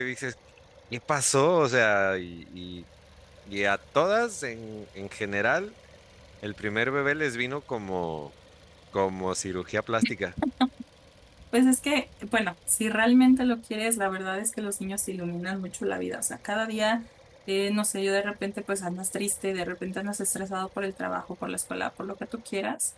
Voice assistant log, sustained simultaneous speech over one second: none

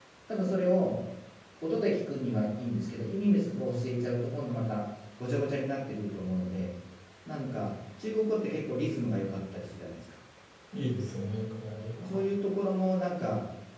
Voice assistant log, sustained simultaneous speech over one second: none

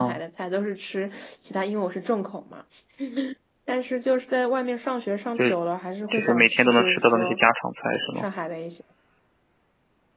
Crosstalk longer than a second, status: present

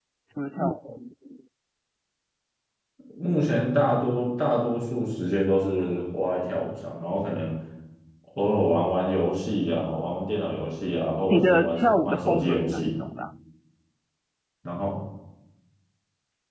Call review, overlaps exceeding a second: present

